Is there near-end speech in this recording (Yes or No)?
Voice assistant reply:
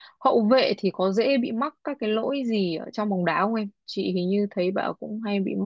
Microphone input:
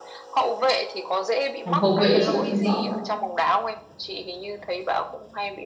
Yes